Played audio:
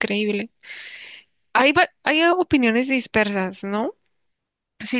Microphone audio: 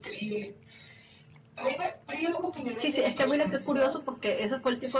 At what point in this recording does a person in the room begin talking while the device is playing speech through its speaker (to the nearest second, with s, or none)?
3 s